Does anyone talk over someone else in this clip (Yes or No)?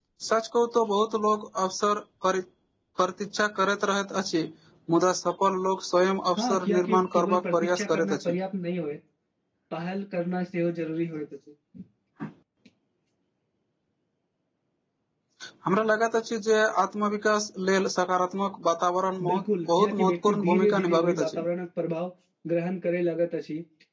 Yes